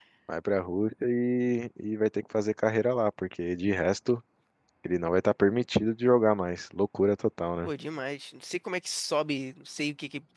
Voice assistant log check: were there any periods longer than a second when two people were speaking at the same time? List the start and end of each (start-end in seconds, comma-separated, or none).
none